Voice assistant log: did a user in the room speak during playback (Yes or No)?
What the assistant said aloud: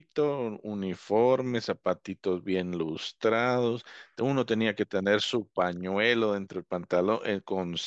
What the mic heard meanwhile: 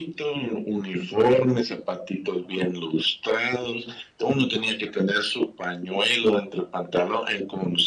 No